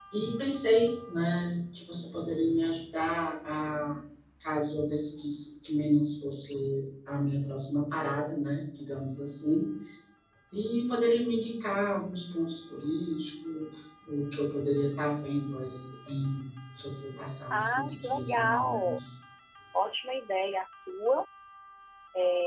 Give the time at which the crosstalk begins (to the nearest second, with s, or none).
18 s